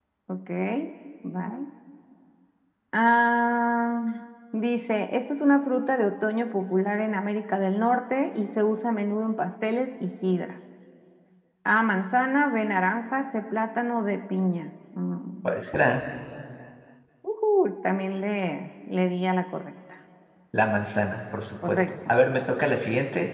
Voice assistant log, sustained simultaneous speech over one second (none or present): none